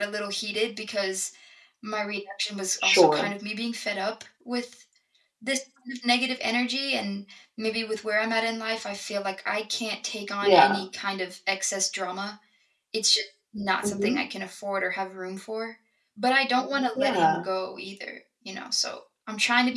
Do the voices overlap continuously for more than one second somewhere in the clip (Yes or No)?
No